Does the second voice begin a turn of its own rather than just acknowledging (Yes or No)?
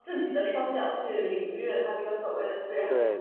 Yes